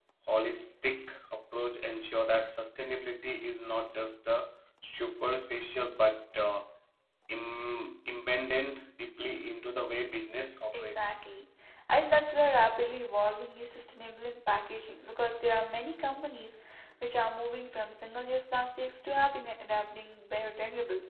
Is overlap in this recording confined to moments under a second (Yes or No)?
Yes